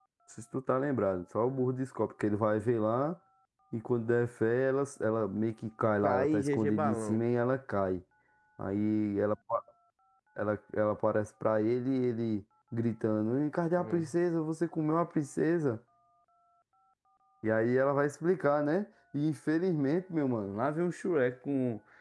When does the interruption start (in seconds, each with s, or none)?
6.0 s